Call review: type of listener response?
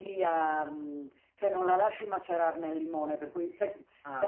listening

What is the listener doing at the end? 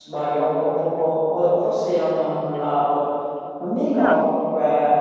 listening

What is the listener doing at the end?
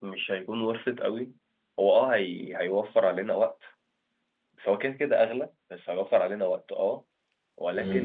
listening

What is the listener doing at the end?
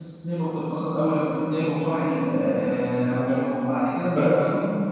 listening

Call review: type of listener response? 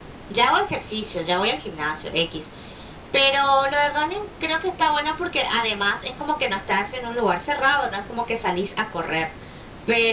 listening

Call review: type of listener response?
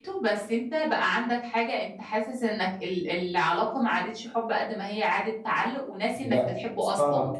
taking over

